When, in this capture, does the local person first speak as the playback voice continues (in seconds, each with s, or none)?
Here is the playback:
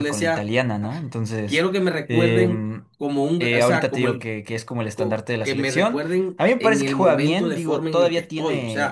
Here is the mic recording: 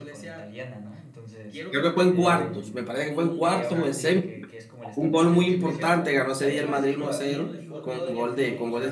1.7 s